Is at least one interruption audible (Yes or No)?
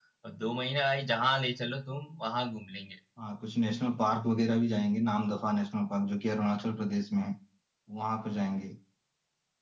No